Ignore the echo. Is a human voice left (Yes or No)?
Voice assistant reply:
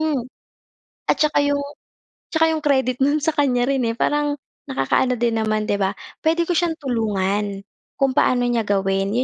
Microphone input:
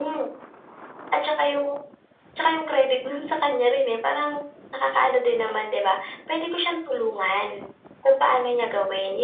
No